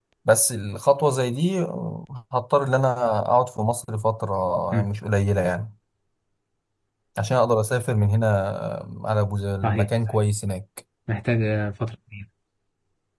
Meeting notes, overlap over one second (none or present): none